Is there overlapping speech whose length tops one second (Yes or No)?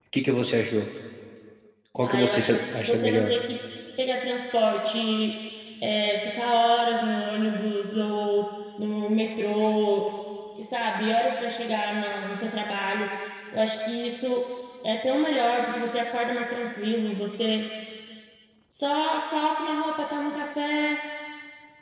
Yes